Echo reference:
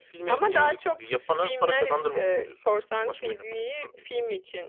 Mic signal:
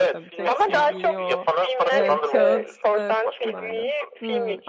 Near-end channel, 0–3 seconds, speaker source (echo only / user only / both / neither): both